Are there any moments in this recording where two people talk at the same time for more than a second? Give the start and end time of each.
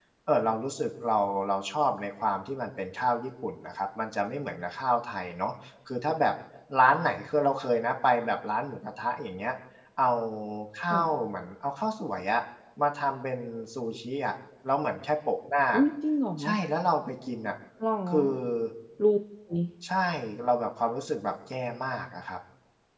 none

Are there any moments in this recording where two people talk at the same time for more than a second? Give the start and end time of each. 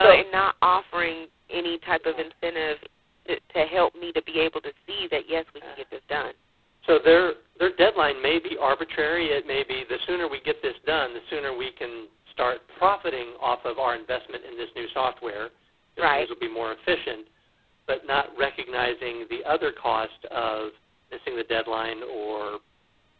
none

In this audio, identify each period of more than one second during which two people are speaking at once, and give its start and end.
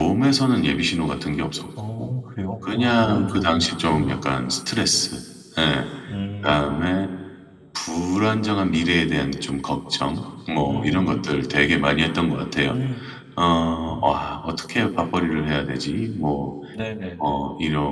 2.6-4.2

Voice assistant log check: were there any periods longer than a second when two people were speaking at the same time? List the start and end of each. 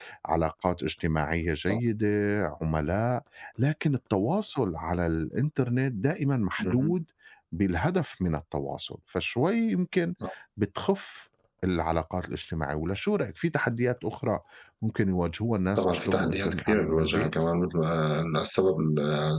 15.8-17.3

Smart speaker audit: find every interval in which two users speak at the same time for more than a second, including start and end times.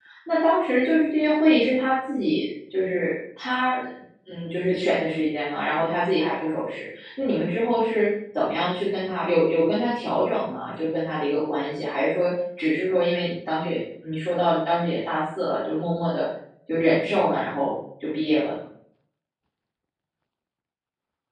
none

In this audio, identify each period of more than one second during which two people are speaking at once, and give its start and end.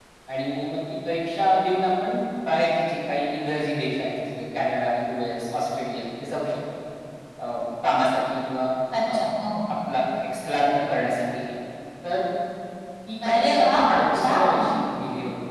13.3-14.7

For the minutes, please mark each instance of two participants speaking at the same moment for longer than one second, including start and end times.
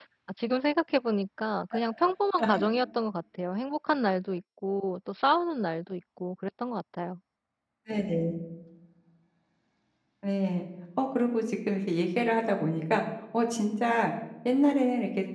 none

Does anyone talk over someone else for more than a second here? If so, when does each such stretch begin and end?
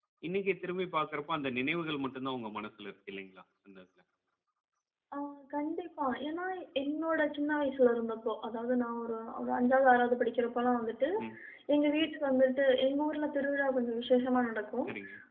none

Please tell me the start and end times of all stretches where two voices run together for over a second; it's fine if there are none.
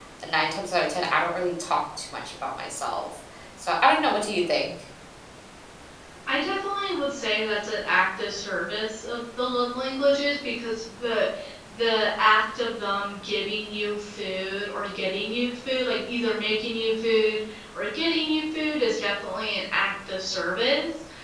none

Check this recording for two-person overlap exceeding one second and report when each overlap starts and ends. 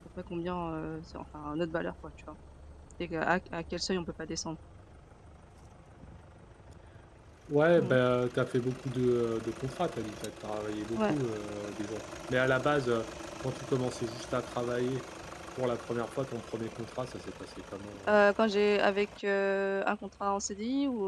none

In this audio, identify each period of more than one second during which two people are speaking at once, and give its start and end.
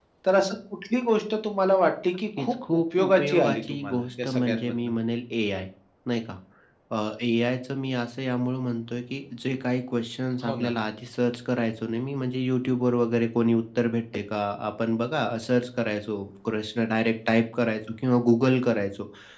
2.4-4.9

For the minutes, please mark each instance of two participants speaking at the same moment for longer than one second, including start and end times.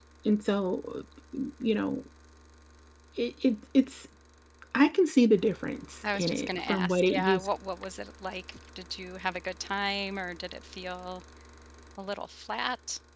6.0-7.5

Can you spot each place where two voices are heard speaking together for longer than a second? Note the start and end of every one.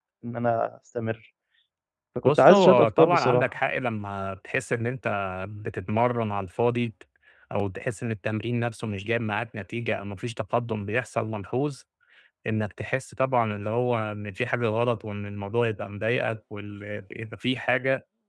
2.2-3.5

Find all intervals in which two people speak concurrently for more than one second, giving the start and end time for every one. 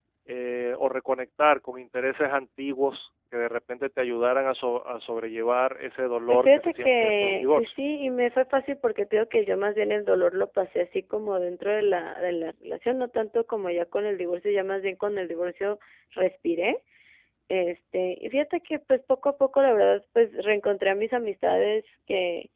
6.3-7.7

